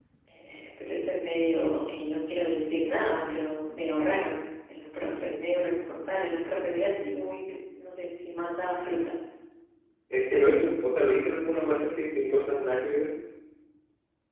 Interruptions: none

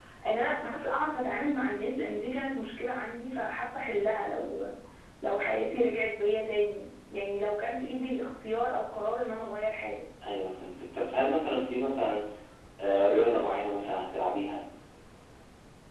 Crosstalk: none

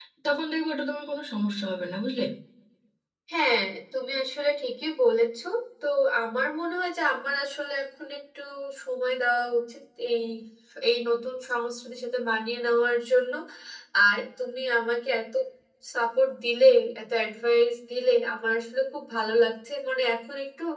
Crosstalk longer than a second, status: none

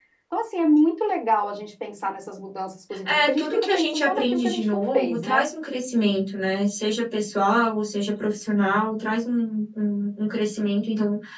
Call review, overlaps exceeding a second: present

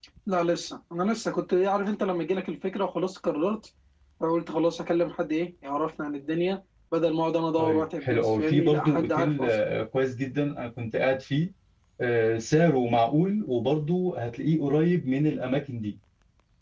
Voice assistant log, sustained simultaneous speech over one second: present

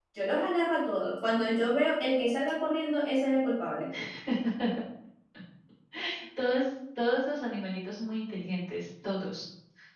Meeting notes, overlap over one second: none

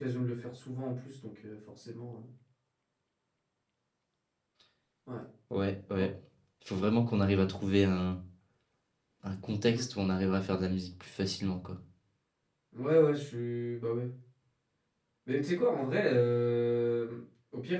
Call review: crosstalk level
none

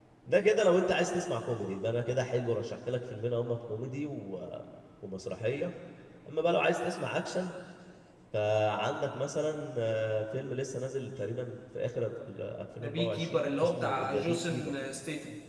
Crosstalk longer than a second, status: present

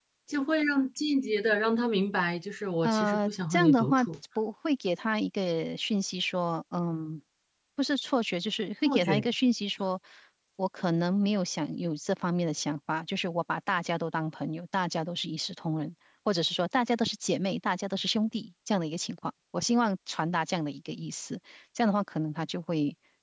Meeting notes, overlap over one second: present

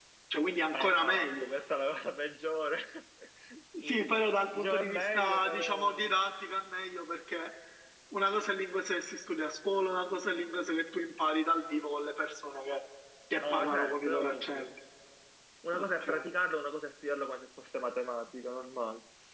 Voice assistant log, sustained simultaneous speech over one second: present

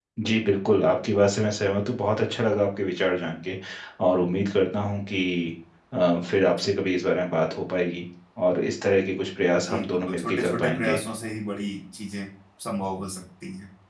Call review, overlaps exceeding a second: present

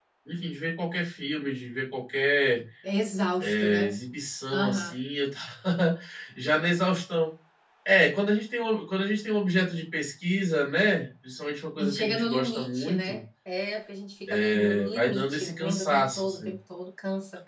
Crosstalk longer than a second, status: present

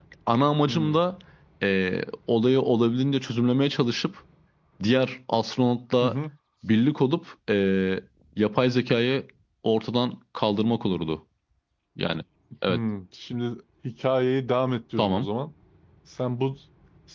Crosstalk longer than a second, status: none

